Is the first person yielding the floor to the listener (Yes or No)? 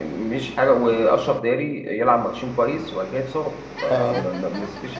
No